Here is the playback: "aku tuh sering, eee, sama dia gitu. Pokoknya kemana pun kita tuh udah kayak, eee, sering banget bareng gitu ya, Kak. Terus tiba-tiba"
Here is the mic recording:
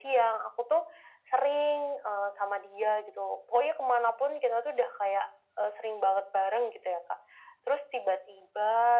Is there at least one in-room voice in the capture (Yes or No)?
No